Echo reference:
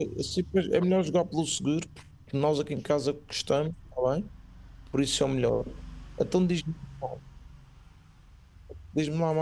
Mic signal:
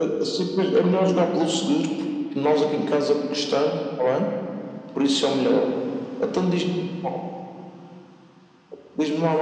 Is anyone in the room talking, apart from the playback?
No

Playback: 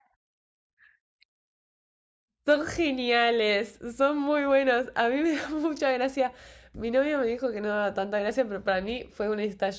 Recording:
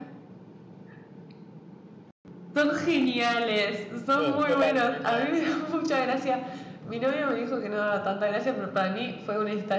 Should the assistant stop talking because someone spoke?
Yes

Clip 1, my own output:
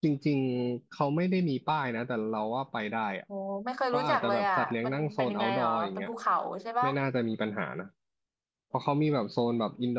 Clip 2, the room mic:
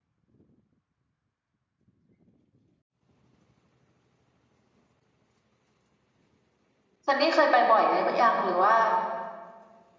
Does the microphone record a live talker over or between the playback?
Yes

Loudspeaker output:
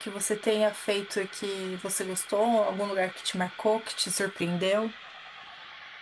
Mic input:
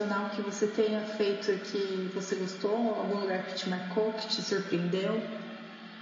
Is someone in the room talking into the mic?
No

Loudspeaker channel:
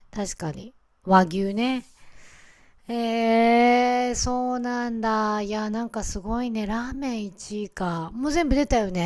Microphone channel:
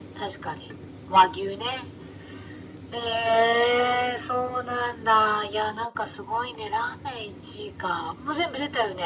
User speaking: No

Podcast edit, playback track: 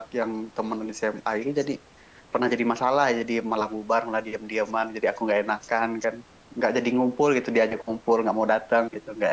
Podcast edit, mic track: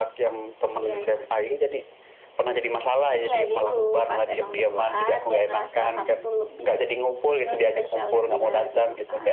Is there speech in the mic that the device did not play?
Yes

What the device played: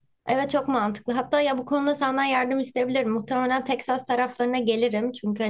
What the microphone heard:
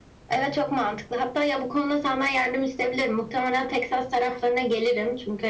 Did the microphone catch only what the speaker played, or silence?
Yes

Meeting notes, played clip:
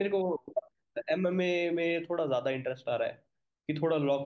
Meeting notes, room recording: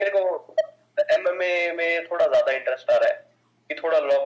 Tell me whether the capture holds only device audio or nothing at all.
Yes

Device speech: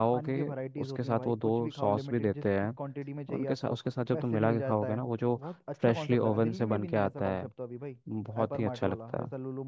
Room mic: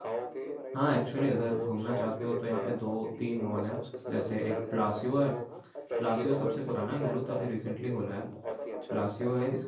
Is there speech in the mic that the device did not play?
Yes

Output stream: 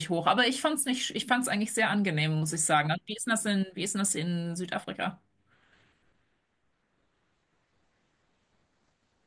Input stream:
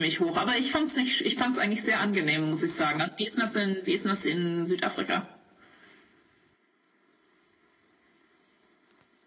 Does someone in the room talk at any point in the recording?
No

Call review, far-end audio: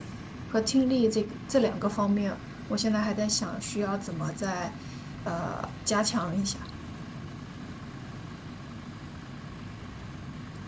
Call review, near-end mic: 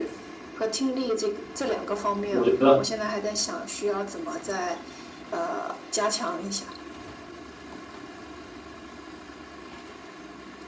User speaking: Yes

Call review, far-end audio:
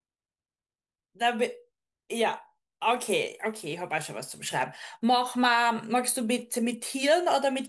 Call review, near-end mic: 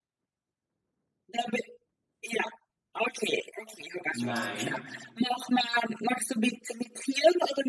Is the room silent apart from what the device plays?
No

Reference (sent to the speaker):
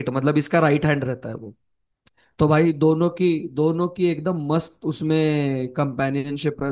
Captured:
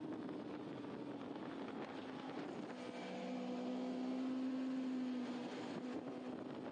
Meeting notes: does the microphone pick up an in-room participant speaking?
No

